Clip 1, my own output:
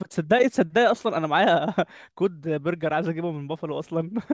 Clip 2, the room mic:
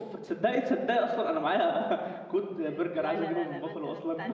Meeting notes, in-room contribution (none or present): present